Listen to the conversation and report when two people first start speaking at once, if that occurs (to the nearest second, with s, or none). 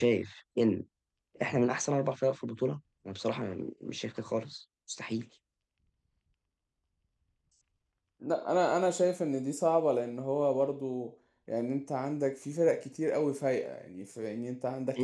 none